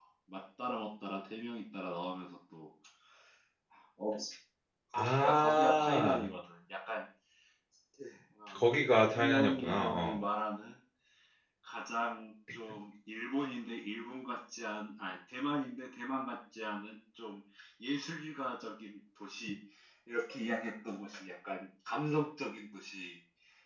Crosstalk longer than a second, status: present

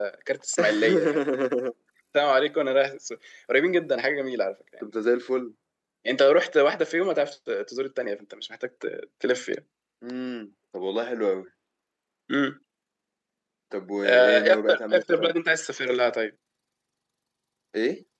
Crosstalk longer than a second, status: present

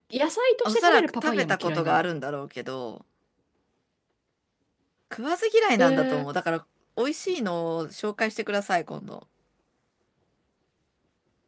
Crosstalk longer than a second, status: present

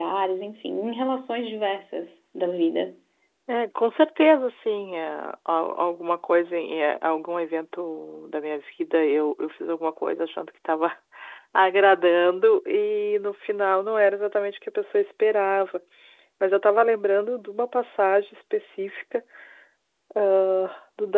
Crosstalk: none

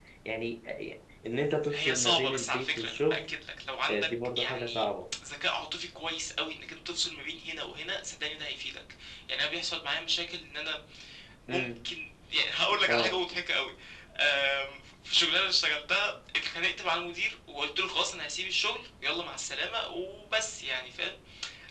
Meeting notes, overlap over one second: present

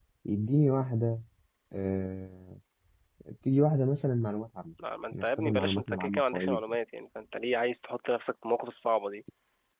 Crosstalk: present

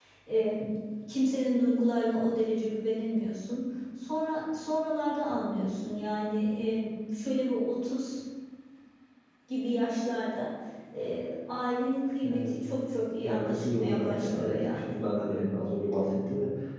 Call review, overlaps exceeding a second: present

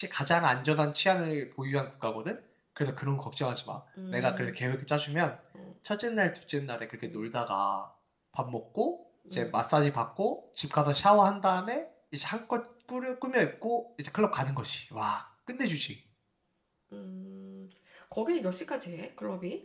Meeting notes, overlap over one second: none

